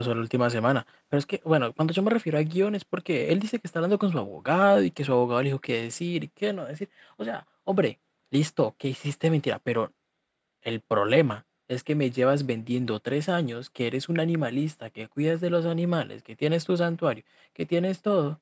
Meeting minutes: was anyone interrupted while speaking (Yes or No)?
No